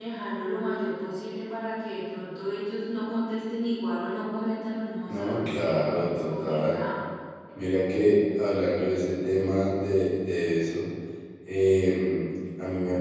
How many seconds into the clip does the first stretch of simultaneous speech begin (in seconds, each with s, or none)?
5.1 s